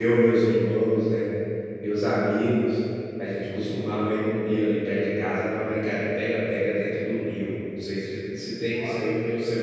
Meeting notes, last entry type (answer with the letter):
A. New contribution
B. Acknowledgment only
B